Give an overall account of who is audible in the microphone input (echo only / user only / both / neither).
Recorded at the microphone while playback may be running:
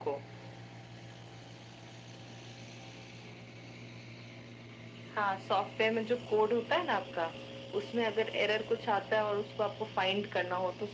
echo only